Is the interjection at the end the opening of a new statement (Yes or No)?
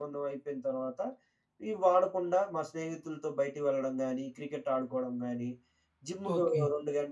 No